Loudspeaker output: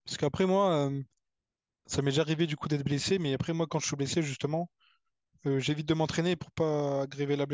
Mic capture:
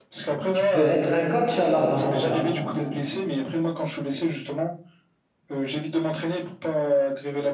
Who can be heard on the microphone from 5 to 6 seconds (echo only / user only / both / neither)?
echo only